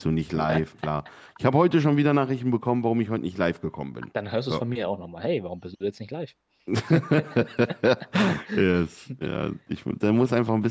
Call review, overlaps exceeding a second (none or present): none